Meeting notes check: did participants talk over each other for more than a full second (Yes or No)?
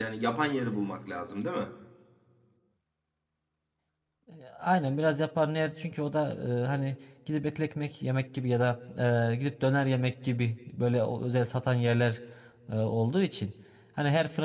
No